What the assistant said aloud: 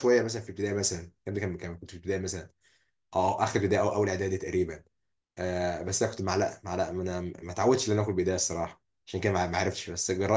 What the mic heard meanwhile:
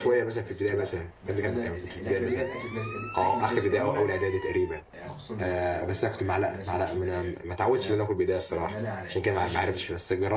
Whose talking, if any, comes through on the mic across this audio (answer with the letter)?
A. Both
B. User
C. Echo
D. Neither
A